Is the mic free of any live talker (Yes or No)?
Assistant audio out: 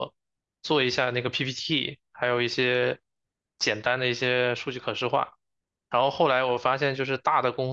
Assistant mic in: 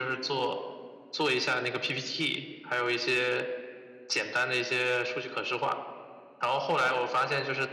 Yes